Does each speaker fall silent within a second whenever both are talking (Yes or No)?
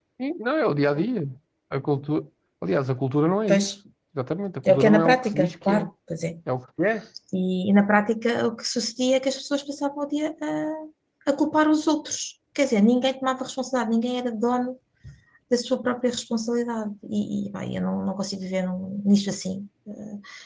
No